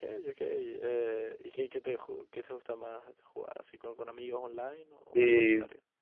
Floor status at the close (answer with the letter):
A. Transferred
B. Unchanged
A